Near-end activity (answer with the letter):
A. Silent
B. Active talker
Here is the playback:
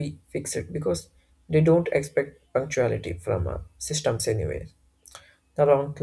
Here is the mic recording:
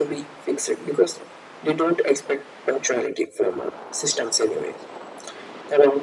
A